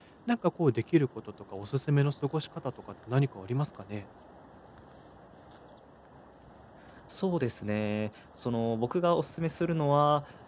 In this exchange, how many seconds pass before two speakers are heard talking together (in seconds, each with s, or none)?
none